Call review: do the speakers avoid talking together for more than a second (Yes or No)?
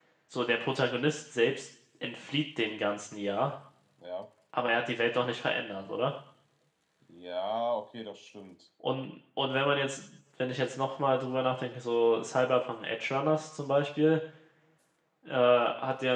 Yes